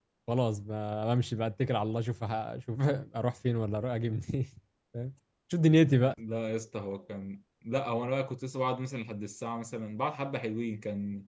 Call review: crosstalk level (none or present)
none